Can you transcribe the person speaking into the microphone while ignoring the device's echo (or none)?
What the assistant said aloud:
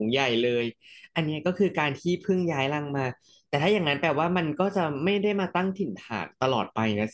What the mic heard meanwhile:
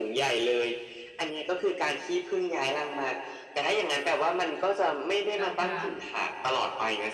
นางพญา